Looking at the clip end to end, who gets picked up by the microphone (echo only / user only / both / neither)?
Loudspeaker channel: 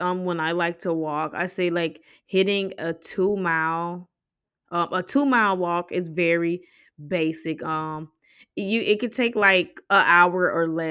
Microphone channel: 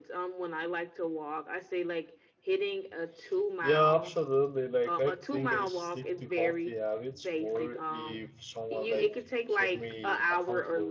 both